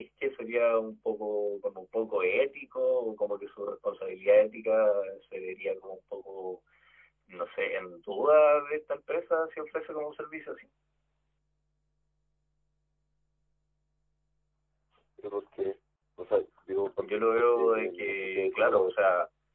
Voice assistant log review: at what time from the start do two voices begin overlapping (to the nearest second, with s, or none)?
17 s